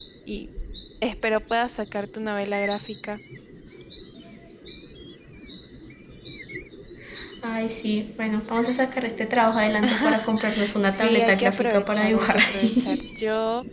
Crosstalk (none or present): present